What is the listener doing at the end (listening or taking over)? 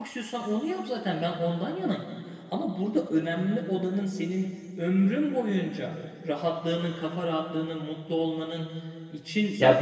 taking over